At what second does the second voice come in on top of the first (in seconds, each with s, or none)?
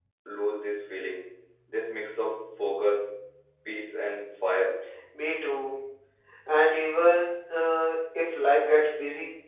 none